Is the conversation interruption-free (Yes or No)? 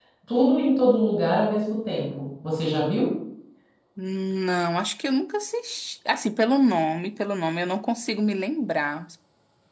Yes